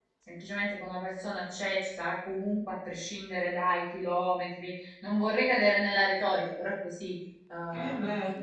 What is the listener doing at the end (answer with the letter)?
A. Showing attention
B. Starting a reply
B